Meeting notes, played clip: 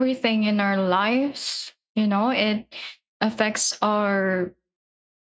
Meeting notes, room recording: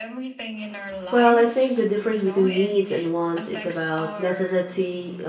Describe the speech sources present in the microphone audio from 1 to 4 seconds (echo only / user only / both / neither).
both